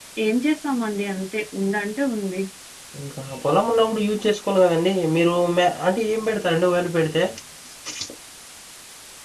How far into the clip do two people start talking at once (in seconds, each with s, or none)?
none